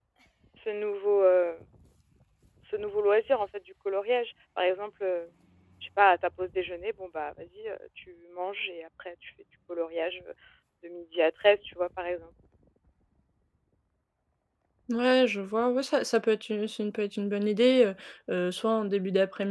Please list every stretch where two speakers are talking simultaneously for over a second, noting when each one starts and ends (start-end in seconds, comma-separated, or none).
none